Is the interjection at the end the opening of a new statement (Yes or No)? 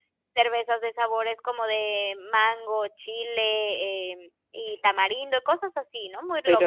Yes